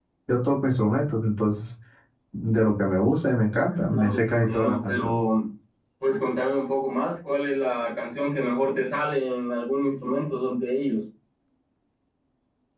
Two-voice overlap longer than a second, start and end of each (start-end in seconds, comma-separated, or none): 3.7-5.2